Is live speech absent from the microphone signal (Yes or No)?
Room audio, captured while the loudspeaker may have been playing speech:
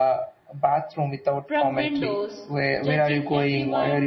No